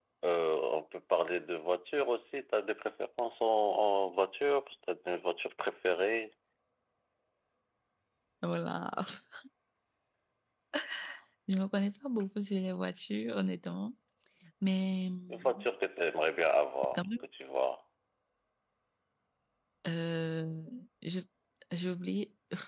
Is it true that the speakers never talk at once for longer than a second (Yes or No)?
Yes